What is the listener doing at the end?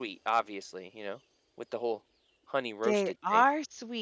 taking over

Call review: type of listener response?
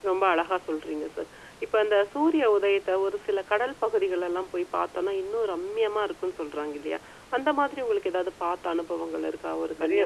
taking over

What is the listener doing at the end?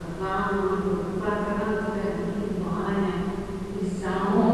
taking over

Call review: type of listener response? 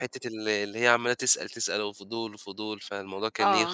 taking over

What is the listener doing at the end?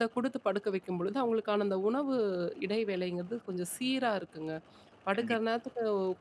listening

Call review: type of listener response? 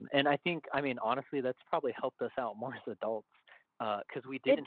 listening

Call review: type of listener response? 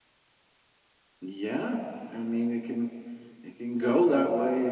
listening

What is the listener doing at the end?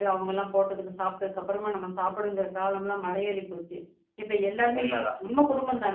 listening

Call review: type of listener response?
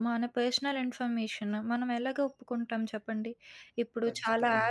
listening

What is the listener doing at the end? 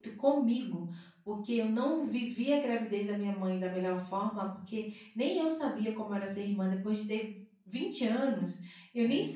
listening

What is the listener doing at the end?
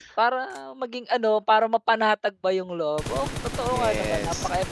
taking over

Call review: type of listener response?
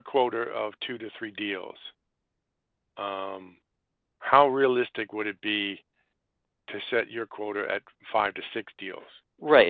taking over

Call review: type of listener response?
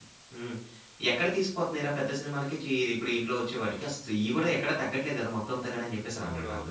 taking over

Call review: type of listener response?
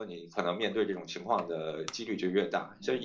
listening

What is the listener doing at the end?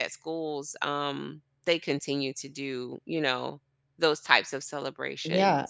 taking over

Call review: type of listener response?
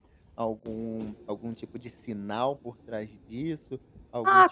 taking over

